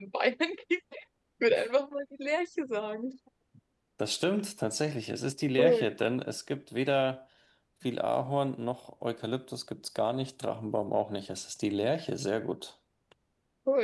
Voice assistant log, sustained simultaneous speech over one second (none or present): none